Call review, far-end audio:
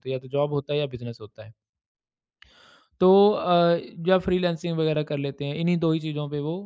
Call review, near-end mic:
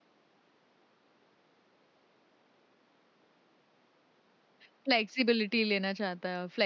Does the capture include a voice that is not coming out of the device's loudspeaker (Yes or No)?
Yes